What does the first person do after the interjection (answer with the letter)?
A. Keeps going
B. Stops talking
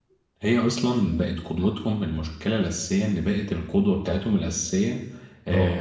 A